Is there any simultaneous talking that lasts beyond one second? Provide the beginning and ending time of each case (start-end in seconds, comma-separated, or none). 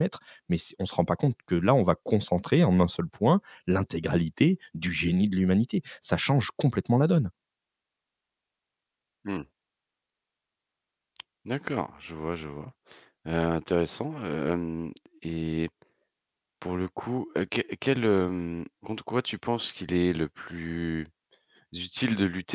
none